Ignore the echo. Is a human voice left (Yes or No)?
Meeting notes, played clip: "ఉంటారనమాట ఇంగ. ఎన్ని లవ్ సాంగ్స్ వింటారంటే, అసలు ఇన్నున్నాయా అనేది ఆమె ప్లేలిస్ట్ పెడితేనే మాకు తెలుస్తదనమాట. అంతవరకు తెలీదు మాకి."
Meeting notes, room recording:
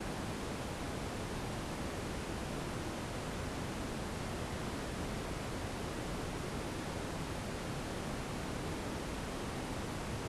No